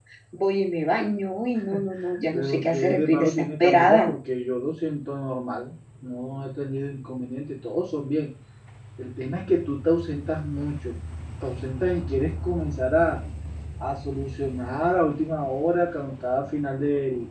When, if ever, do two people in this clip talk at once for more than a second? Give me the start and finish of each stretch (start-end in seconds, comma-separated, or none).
2.3-4.1